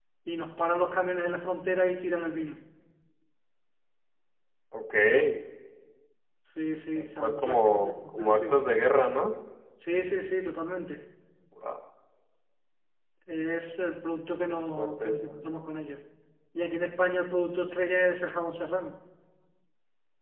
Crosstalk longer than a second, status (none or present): present